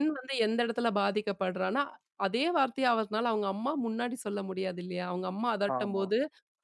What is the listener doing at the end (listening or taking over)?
listening